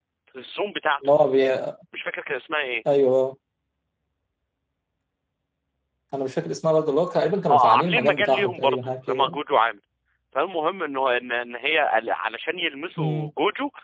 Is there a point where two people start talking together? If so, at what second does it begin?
7.5 s

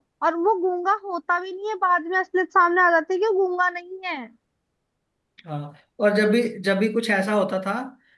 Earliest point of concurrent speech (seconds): none

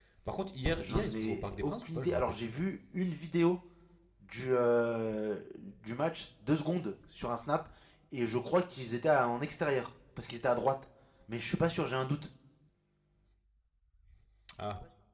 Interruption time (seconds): 0.8 s

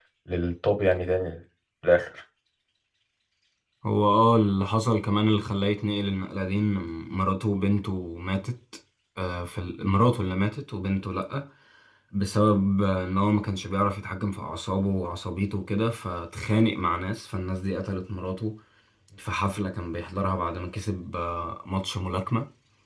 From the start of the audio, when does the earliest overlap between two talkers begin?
none

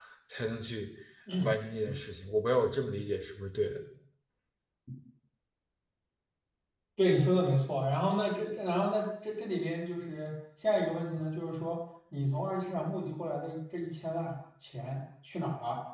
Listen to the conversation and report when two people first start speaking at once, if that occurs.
none

